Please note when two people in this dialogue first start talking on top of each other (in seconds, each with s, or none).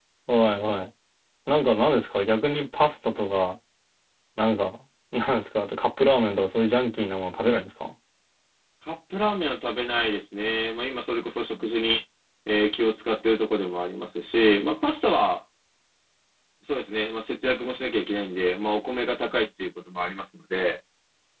none